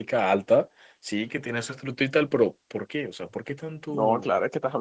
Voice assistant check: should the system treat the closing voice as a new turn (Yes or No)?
Yes